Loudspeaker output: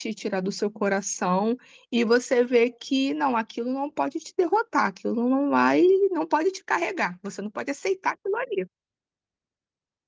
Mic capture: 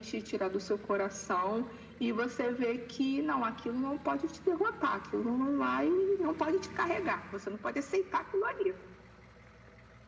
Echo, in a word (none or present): present